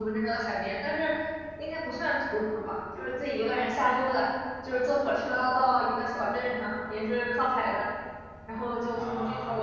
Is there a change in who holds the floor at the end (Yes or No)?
No